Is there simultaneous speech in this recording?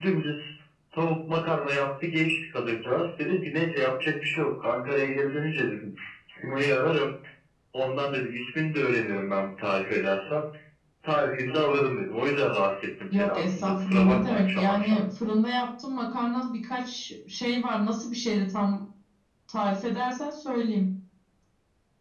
Yes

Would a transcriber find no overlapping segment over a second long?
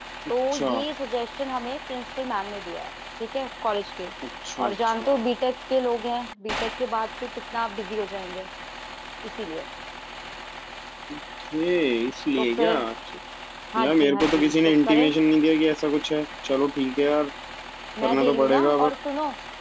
No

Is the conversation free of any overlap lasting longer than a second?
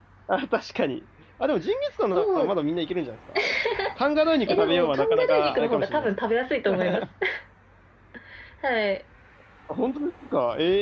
No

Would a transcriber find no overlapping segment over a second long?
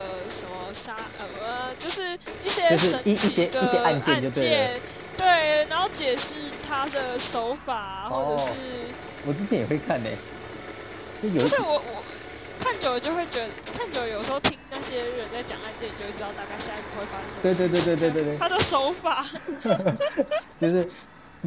No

